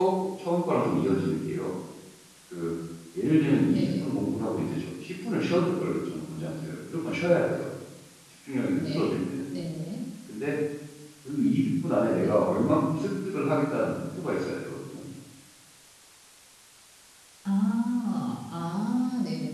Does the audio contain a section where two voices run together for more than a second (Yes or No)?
No